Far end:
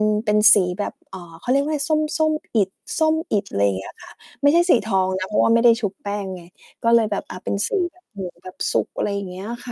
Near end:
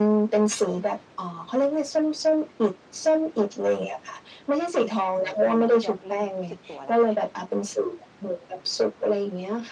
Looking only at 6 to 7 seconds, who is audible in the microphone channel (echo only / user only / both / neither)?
both